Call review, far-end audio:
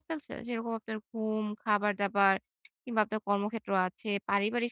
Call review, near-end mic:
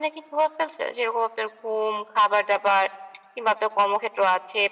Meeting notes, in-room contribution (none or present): none